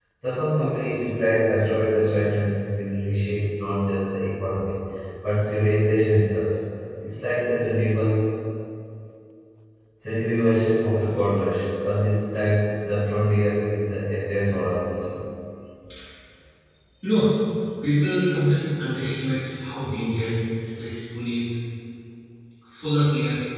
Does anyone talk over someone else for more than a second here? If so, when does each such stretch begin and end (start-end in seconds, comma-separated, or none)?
none